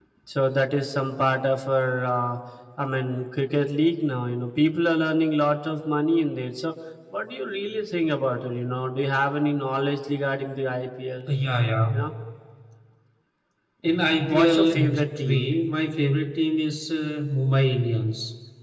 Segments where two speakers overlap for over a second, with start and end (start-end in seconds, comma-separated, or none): 14.2-15.5